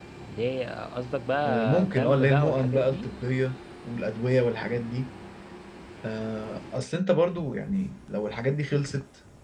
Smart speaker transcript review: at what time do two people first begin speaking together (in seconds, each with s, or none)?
1.4 s